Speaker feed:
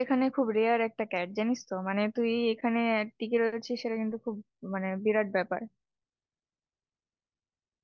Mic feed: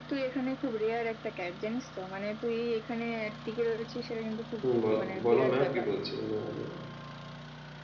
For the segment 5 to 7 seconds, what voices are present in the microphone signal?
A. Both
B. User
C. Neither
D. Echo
A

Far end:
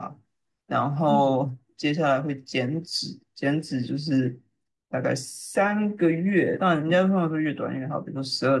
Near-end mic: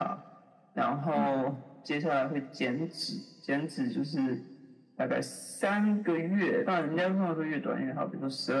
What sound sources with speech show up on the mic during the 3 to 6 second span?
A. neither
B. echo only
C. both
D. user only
B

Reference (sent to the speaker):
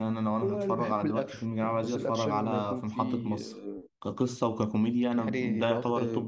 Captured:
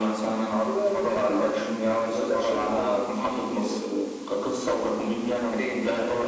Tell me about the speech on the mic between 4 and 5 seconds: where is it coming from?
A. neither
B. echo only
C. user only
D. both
B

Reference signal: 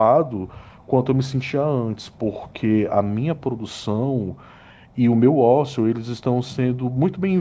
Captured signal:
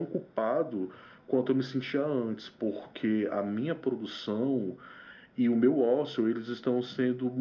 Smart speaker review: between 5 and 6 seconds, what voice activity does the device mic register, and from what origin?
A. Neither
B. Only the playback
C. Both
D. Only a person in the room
B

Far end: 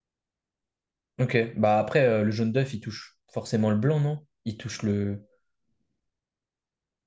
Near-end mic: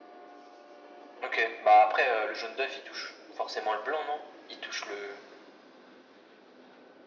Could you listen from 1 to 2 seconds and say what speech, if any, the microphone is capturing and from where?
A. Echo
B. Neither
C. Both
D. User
A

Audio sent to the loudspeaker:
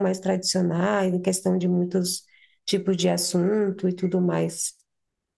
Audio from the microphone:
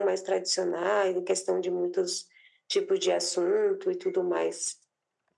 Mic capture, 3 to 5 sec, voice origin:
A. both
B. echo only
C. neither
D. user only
B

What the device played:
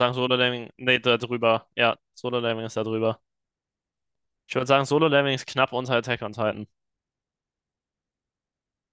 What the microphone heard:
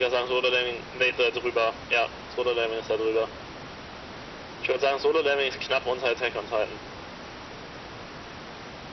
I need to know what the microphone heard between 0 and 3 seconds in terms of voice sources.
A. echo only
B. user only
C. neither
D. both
A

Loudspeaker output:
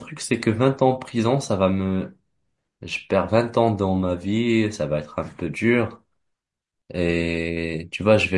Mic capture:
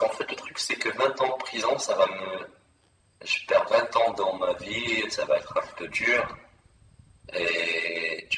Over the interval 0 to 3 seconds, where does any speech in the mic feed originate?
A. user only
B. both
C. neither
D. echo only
D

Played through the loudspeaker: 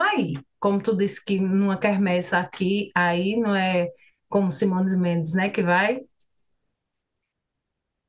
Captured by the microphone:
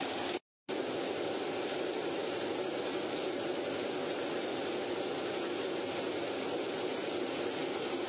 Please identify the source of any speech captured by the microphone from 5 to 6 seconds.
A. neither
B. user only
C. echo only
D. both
A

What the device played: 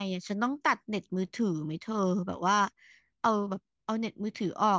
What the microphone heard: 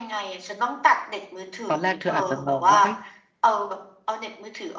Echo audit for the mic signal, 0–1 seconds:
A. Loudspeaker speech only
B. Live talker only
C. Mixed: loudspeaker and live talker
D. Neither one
A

